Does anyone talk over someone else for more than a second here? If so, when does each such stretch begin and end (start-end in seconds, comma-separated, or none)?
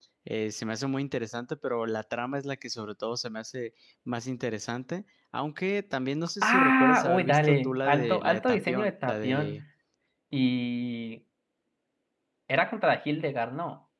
6.4-9.6